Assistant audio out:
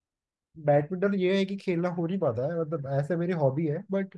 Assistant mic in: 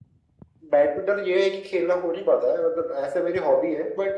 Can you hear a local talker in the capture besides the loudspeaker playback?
No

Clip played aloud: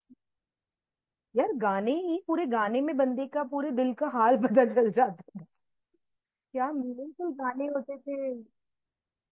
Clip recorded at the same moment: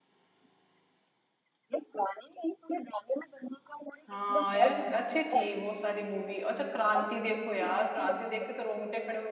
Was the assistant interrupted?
Yes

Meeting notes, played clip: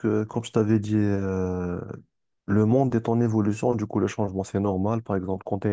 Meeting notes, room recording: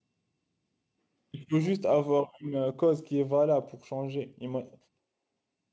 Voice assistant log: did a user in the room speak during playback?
Yes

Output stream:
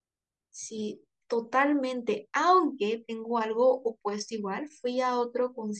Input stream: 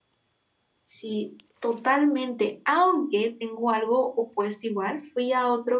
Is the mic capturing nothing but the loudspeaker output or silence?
Yes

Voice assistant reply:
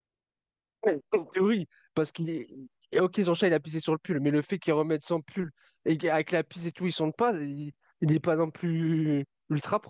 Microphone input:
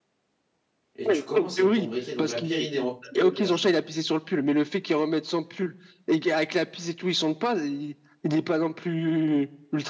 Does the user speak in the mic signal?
Yes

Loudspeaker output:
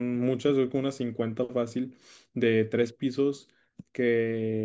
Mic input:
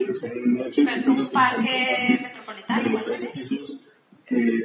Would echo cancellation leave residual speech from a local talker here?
Yes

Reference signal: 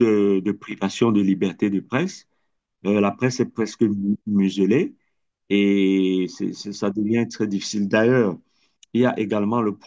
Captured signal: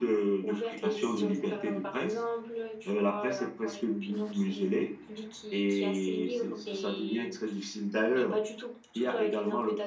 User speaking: Yes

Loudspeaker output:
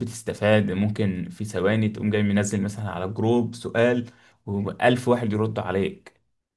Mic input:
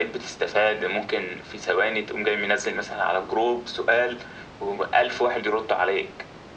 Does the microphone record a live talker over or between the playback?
No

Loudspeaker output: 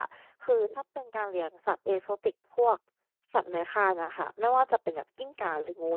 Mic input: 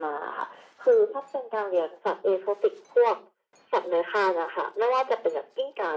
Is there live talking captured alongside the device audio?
No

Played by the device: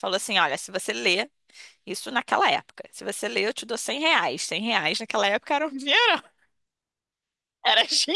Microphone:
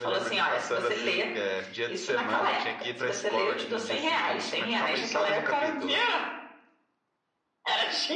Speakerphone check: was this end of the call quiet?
No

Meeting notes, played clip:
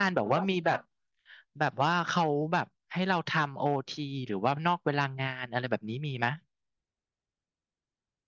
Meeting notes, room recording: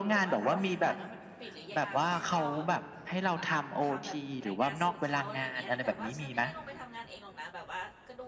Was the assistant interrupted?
Yes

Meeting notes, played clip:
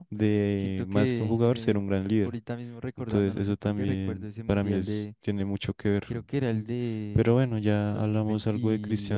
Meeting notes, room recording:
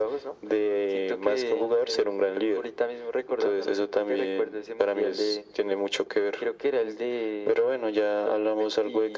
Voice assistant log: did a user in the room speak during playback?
No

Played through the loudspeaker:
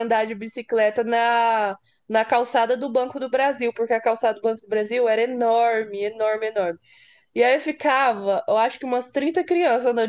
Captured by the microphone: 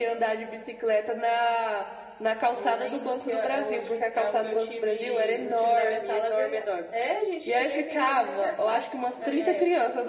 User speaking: Yes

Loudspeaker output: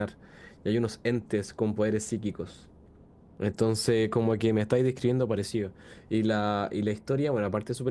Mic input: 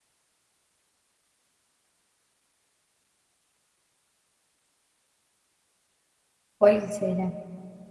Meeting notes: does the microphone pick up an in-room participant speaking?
Yes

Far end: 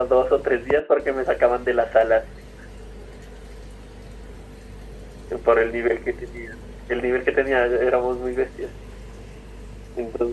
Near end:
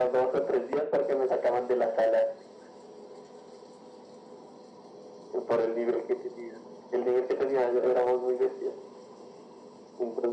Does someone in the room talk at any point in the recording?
No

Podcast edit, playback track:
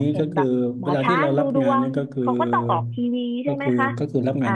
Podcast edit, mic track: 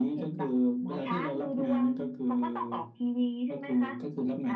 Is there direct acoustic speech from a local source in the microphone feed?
No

